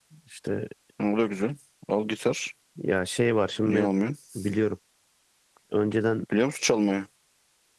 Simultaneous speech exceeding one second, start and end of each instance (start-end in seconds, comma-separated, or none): none